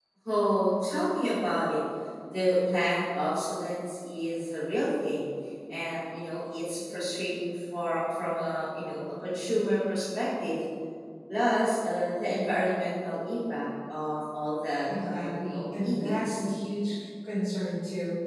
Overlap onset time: 15 s

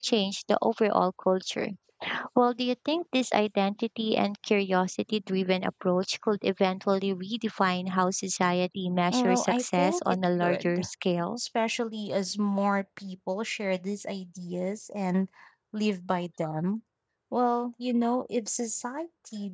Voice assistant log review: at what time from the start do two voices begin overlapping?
9 s

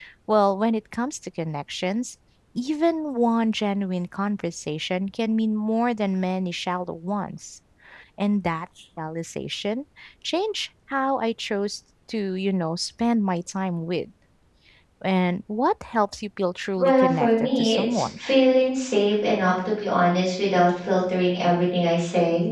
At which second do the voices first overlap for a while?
17 s

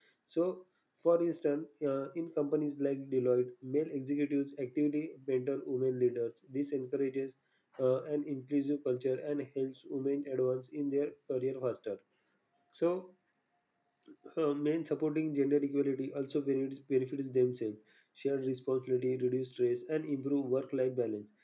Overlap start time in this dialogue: none

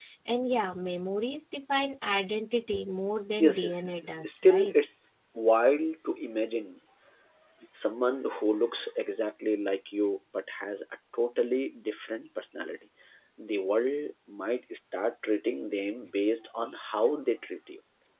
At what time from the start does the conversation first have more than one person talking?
3 s

